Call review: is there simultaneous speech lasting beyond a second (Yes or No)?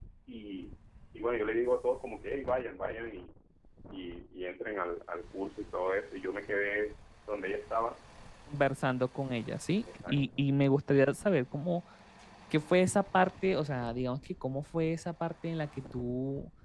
No